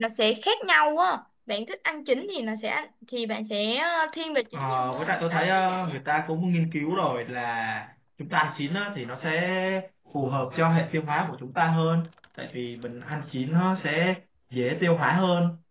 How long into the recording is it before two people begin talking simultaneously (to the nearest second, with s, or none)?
5 s